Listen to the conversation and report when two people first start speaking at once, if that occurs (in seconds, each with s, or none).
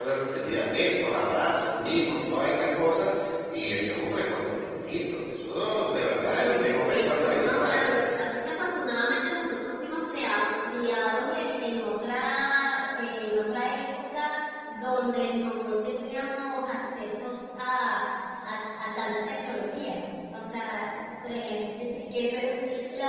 6.4 s